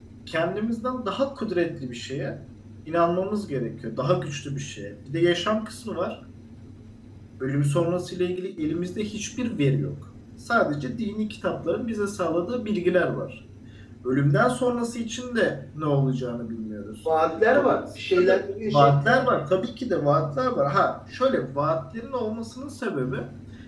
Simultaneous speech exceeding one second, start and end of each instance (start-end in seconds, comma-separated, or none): 17.6-18.9